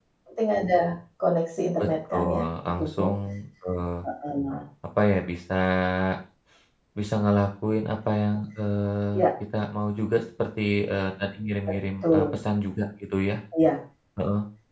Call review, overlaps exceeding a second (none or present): present